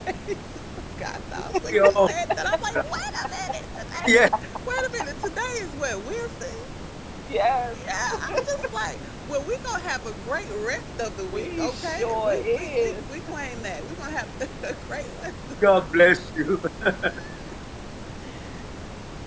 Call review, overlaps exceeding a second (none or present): present